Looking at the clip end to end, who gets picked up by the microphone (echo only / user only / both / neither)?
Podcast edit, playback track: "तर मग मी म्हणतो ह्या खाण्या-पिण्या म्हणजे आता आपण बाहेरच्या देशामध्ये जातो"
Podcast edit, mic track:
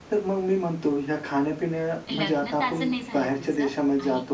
both